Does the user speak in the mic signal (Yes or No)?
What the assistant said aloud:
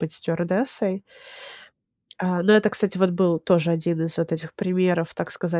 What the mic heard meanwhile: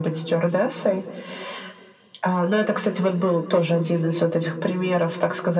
No